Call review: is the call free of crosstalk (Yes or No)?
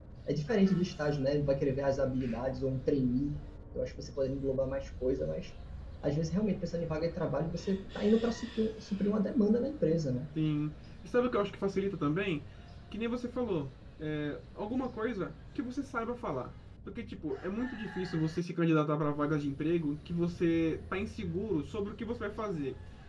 Yes